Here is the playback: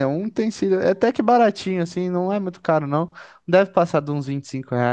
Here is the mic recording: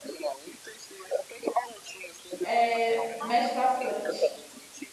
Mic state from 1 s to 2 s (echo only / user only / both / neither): echo only